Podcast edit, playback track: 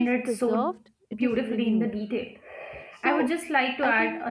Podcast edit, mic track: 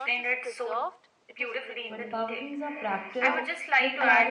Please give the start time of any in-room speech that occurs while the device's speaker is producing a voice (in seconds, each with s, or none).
1.9 s